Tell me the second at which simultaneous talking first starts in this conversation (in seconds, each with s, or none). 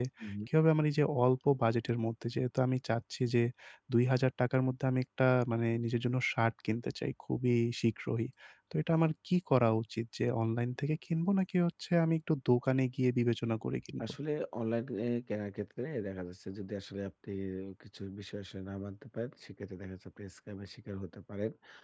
none